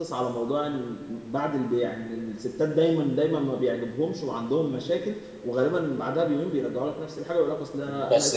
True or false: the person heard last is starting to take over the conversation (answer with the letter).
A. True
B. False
A